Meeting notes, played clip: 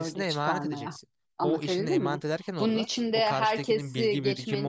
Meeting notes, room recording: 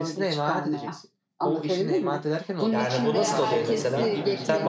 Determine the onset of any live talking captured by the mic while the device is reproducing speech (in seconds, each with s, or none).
2.7 s